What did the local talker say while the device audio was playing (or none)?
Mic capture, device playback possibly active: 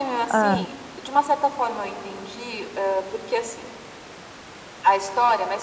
Hã.